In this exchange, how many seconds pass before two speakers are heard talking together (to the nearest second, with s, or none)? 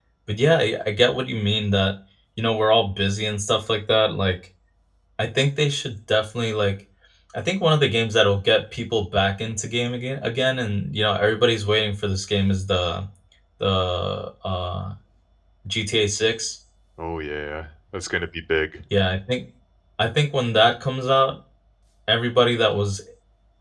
none